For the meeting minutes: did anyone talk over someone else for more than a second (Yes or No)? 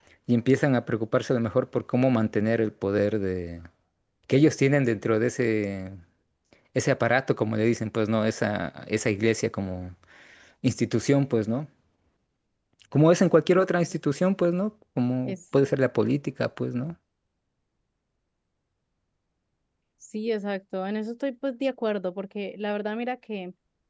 No